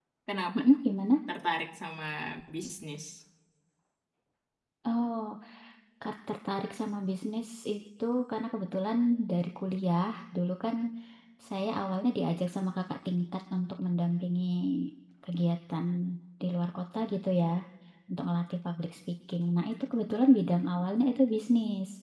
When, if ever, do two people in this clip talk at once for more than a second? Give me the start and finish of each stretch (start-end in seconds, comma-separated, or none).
none